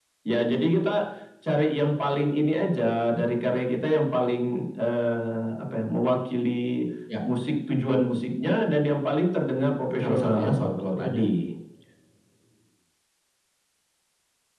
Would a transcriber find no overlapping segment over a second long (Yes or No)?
No